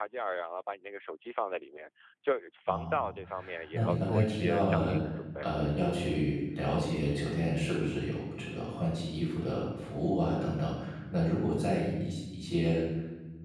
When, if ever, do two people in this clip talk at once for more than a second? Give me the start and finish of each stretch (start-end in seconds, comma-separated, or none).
3.7-5.0